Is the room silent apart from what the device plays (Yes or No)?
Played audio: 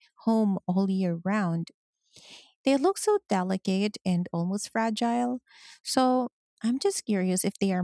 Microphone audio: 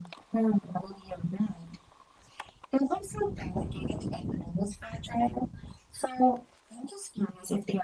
Yes